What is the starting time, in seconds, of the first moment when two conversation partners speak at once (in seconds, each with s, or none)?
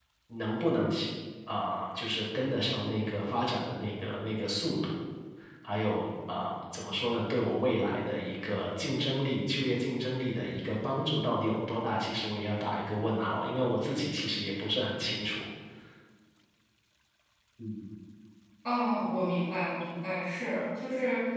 none